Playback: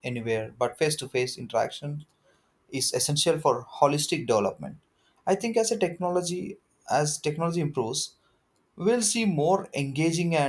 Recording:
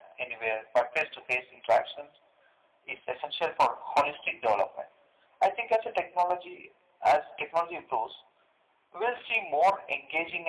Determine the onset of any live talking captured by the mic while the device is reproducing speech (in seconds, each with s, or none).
none